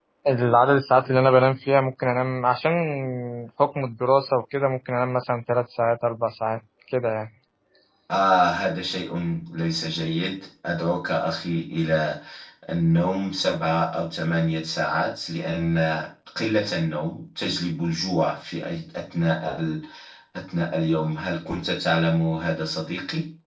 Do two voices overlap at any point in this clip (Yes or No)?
No